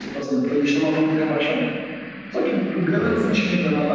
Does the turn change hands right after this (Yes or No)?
No